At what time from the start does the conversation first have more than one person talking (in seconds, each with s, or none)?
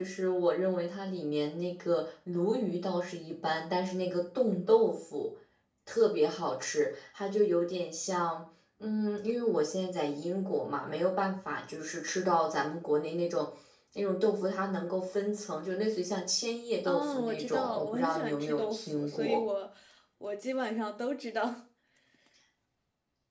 16.8 s